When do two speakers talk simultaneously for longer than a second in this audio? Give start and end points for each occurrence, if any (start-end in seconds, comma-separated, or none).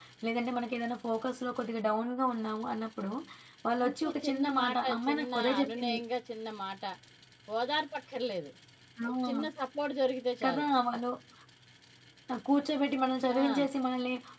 3.8-6.0